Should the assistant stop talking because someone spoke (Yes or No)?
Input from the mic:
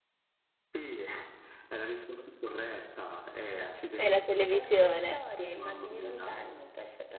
Yes